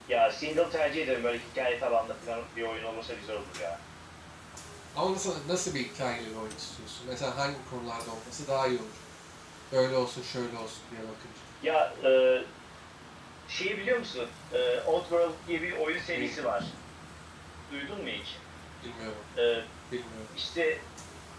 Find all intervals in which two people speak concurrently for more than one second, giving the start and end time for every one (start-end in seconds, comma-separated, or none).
none